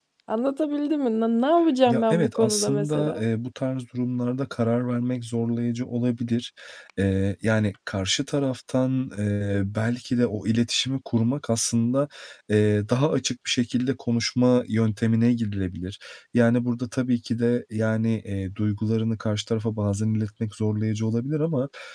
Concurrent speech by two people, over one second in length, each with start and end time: 1.9-3.2

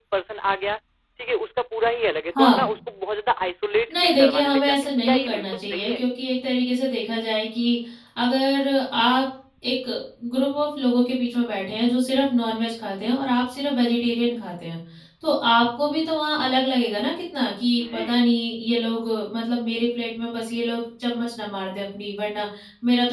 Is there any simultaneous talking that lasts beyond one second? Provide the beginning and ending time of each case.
3.9-6.0

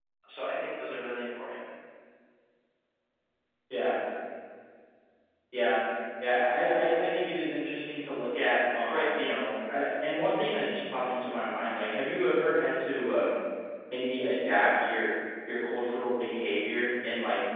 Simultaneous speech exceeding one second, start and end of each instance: none

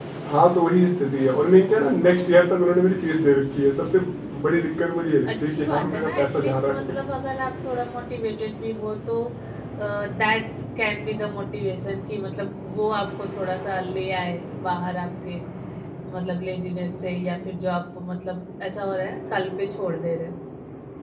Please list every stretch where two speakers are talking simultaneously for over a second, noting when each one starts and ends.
5.3-6.7

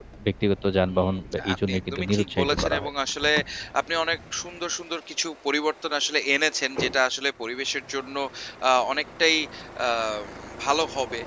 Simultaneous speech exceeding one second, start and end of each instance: 0.9-2.9

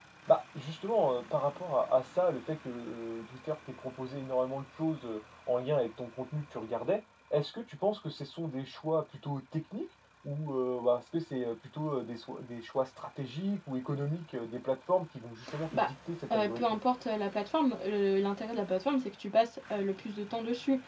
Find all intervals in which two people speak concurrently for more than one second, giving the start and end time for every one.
none

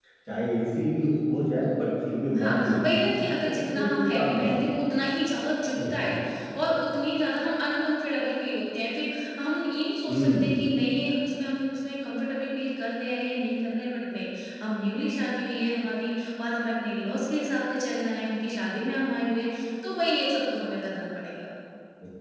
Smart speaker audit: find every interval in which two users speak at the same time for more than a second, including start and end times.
2.4-4.6

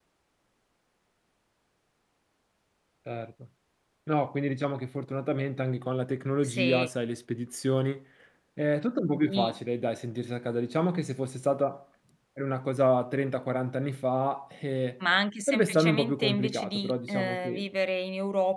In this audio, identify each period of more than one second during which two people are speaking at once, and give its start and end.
15.5-17.7

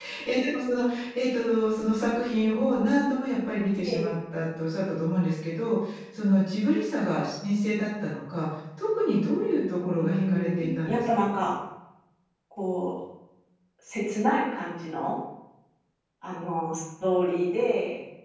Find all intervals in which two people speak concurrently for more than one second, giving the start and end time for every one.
9.8-11.3

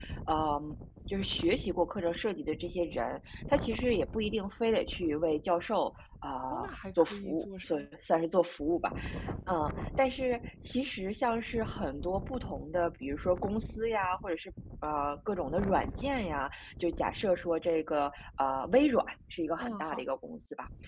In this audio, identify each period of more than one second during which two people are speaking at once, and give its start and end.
6.5-7.9

